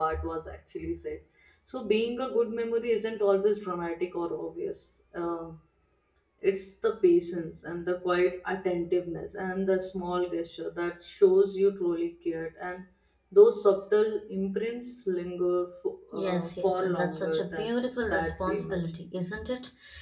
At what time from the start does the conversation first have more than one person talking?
16.1 s

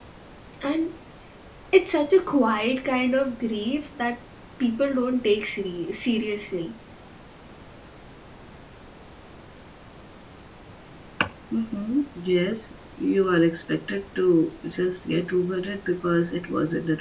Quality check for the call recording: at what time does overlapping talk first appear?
none

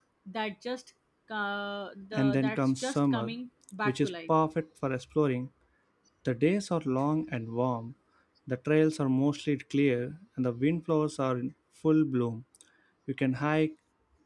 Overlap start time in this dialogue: 2.1 s

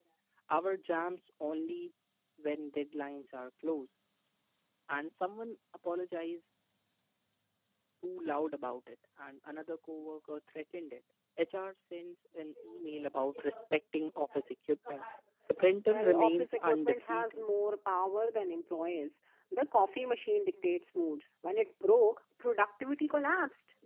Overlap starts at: 15.9 s

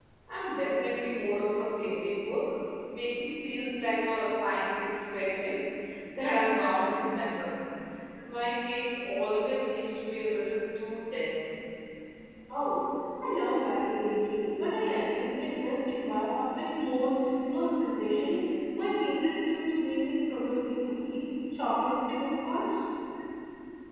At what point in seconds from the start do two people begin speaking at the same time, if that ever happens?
none

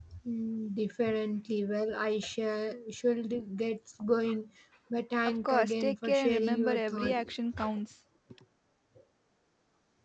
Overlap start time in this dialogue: 5.3 s

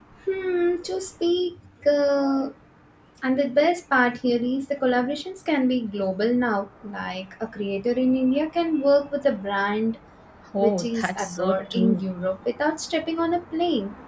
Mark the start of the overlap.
10.6 s

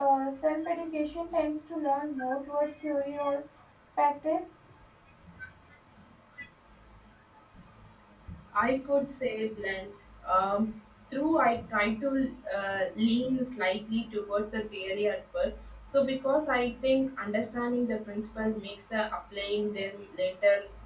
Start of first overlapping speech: none

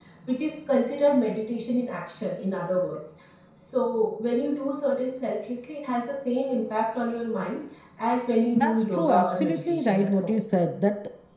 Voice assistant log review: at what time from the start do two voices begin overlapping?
8.5 s

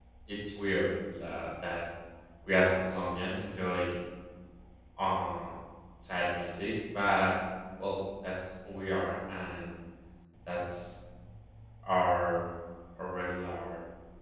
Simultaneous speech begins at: none

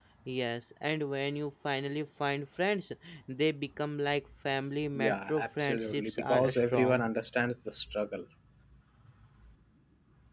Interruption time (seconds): 4.9 s

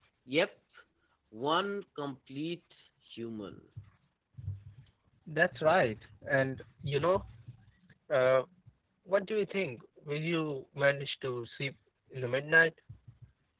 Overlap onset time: none

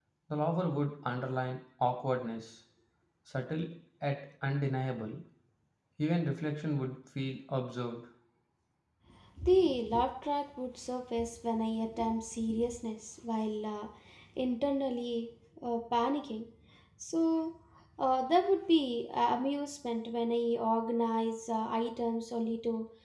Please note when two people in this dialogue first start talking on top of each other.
none

